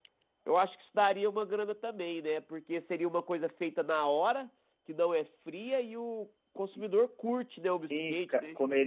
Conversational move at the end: taking over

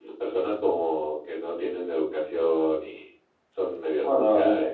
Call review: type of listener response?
taking over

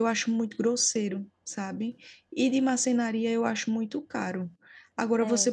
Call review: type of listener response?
listening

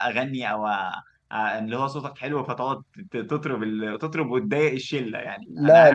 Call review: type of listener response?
taking over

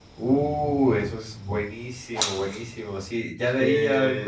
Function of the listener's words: listening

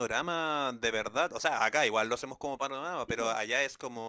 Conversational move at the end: listening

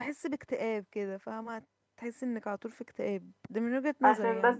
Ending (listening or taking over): taking over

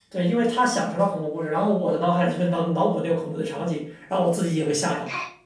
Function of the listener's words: taking over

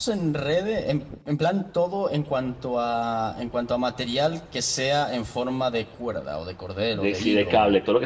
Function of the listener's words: taking over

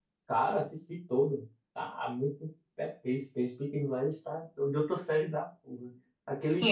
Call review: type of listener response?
taking over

